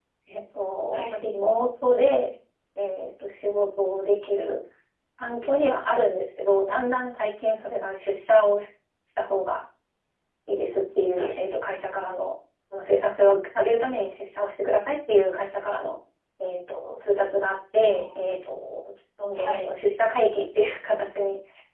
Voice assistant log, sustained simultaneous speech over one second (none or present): none